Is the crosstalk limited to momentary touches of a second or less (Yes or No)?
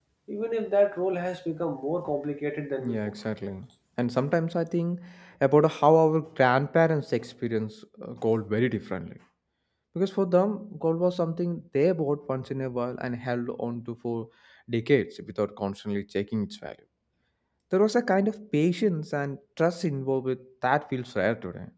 Yes